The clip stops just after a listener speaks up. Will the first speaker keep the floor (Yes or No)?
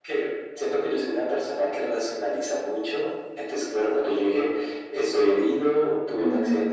Yes